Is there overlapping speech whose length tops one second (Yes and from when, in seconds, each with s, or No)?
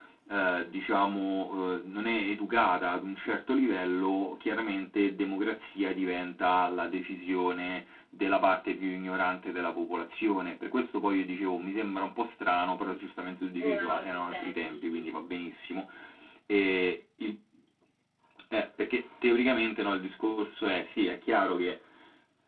Yes, from 13.6 s